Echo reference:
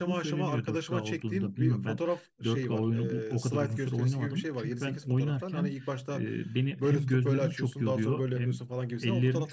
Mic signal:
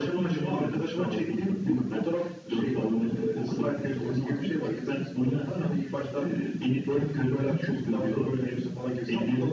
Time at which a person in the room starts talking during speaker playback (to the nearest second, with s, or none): none